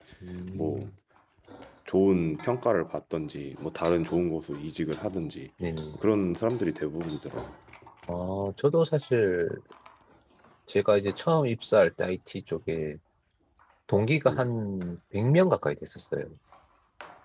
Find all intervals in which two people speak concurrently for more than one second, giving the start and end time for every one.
none

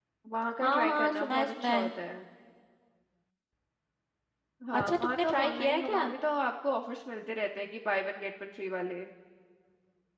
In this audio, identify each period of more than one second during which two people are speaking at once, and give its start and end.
0.6-1.9, 4.8-6.0

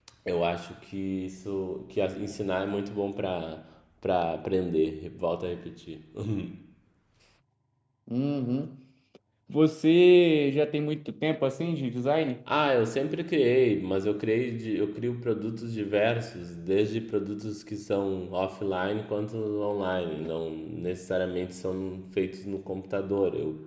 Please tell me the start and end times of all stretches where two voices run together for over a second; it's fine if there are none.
none

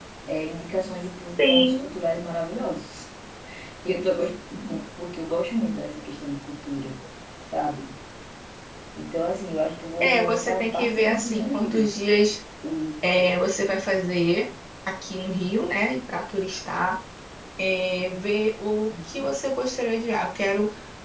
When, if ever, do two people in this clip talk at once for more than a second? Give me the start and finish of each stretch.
10.0-11.9

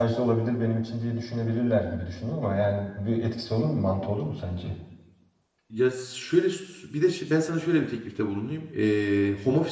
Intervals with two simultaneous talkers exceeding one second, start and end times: none

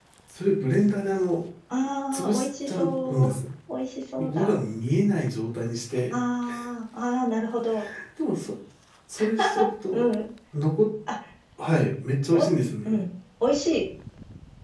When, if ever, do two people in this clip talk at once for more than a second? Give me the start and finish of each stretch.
2.1-3.3

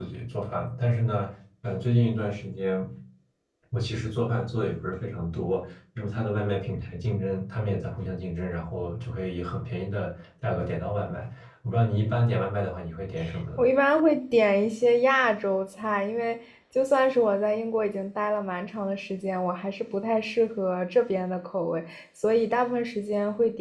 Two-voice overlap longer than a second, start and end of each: none

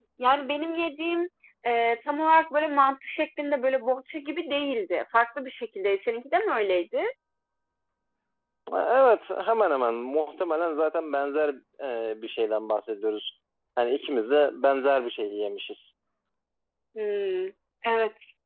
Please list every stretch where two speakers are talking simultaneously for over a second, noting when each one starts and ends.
none

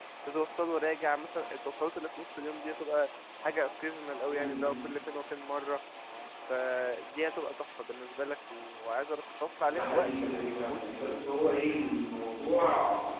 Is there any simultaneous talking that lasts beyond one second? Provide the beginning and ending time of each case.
9.7-11.3

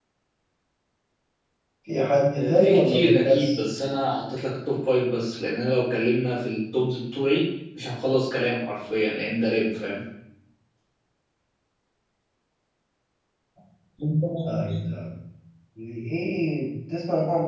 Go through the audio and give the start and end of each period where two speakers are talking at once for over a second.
2.3-3.6

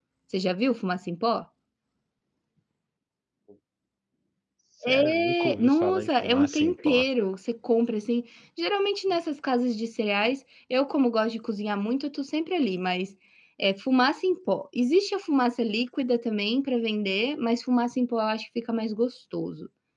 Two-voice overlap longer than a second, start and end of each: 4.8-7.0

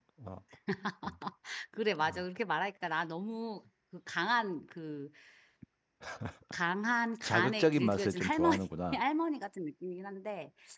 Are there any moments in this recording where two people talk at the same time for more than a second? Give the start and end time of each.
7.2-9.0

